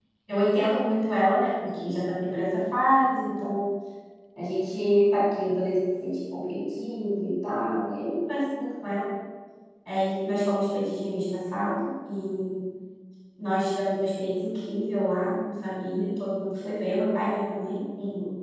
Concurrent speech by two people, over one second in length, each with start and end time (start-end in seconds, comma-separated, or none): none